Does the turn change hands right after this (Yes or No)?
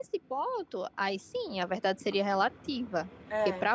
No